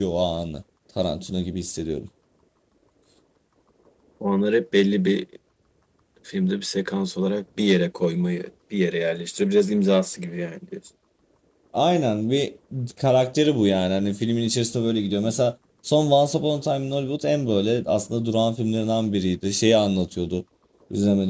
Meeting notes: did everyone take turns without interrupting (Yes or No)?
Yes